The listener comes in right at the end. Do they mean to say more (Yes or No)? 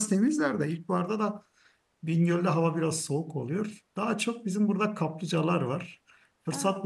No